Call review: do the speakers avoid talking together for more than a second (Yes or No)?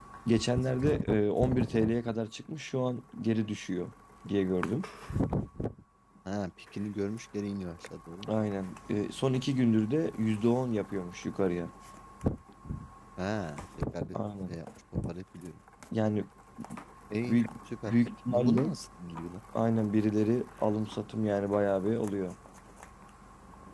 Yes